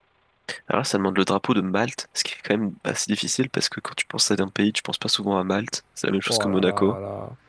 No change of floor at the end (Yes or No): No